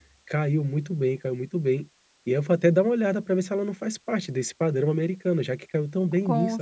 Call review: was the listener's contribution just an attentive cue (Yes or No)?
No